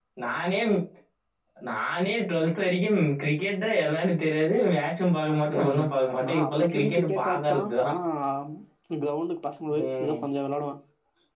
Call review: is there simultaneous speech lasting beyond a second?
Yes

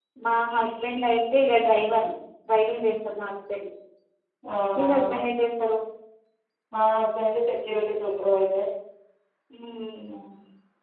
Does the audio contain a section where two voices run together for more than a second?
No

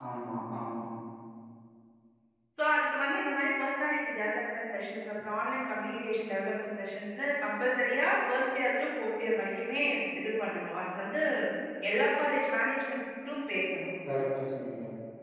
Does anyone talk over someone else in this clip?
No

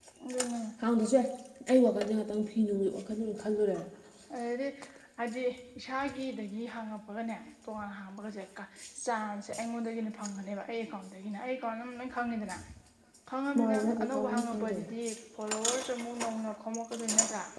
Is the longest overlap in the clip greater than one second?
Yes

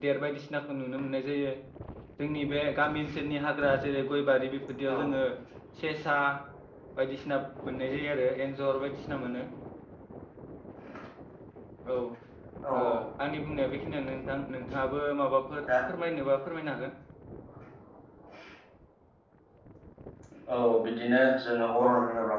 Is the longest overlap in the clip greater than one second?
No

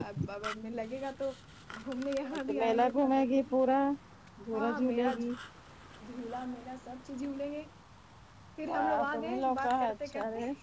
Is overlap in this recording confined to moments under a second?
No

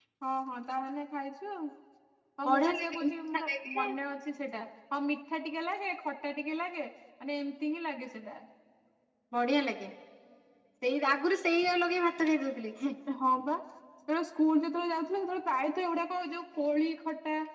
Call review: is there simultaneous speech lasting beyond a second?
Yes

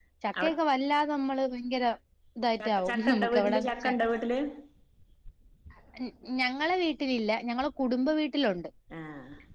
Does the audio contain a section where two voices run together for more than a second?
Yes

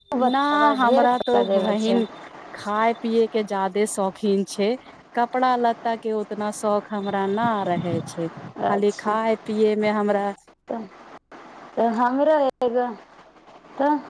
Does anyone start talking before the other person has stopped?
Yes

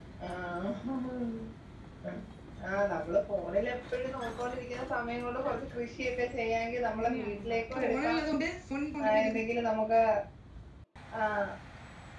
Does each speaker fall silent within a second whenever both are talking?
No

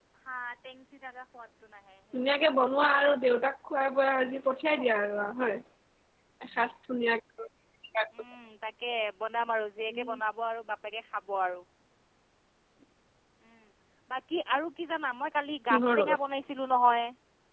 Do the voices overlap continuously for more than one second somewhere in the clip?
No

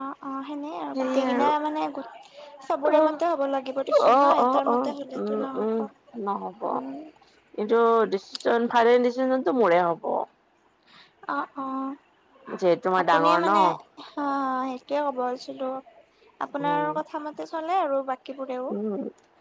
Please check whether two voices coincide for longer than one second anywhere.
Yes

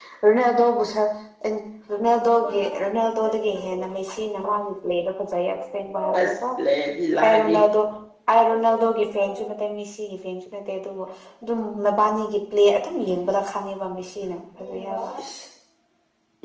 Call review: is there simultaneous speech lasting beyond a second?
No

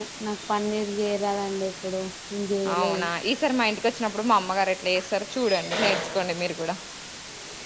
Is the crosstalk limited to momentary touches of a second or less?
Yes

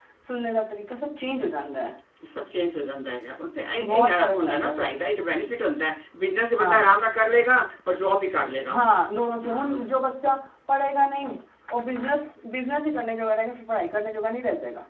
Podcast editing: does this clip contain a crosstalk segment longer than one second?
Yes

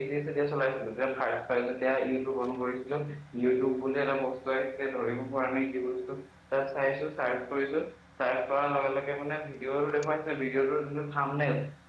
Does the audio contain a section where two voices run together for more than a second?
No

